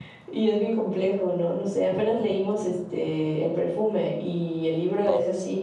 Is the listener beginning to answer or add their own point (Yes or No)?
No